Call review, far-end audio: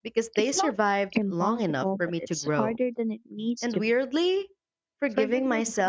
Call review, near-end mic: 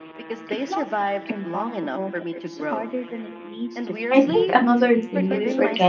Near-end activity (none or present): present